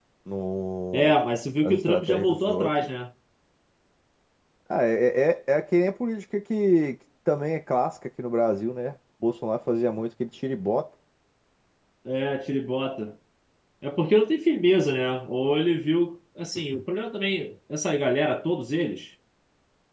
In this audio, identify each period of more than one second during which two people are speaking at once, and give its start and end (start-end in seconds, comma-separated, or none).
1.6-2.9